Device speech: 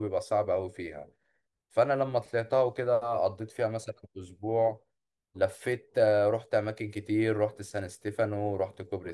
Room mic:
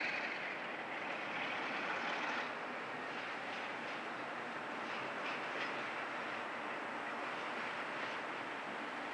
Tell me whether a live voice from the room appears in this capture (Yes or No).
No